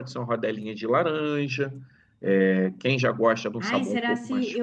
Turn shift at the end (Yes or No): Yes